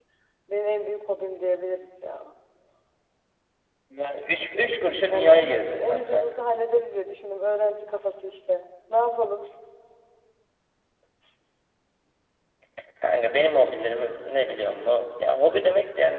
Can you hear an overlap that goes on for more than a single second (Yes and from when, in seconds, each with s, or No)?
Yes, from 5.1 s